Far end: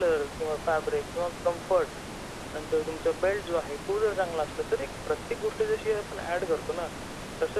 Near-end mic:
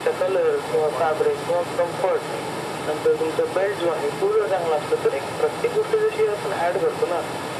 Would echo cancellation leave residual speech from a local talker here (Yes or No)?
Yes